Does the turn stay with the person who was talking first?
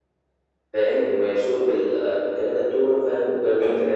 No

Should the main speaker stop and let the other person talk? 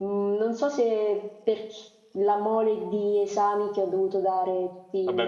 Yes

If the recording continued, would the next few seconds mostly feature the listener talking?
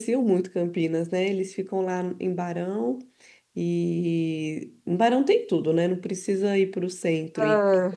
No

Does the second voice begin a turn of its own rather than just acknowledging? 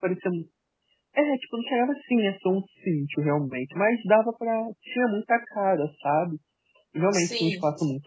No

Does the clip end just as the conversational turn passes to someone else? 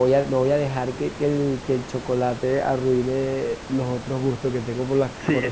Yes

